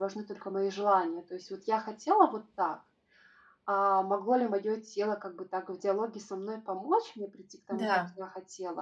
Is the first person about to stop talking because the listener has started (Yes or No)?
No